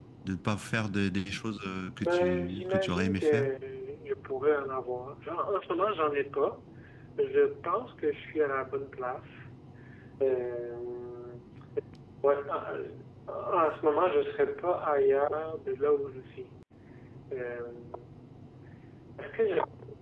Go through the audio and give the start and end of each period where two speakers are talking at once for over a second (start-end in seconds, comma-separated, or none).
2.0-3.5